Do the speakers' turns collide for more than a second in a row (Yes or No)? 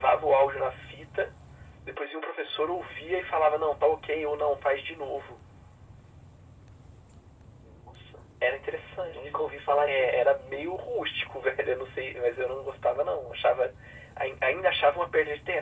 No